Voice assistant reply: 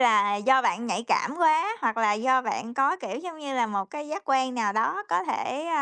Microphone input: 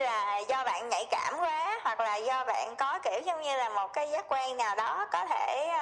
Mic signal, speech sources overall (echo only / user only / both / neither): echo only